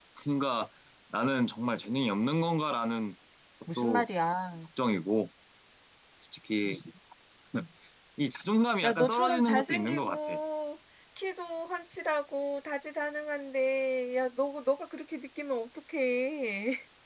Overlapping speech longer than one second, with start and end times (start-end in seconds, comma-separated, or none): 8.8-10.3